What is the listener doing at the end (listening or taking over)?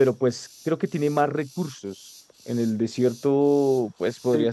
listening